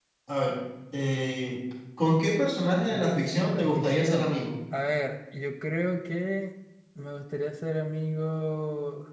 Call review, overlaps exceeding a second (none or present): present